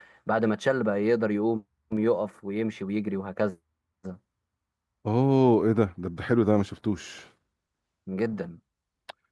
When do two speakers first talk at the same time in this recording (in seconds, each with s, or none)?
none